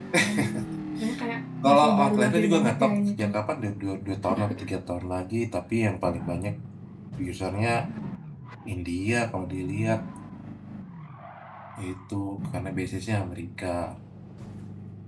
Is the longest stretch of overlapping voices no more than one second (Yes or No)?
No